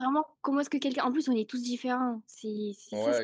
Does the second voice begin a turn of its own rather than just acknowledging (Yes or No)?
Yes